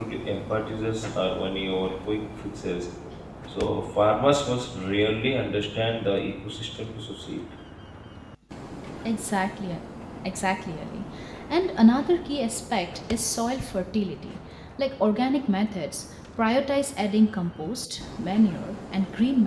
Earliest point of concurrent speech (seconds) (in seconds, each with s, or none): none